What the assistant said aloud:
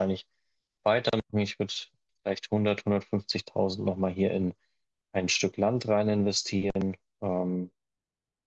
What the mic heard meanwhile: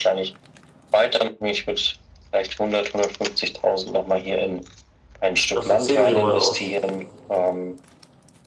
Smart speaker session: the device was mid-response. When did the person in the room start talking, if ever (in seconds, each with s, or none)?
5.5 s